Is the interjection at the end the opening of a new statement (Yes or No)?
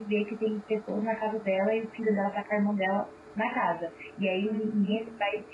No